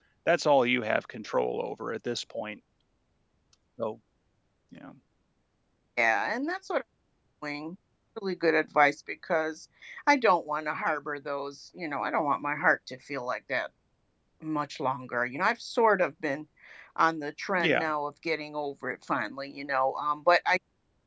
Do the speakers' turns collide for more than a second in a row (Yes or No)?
No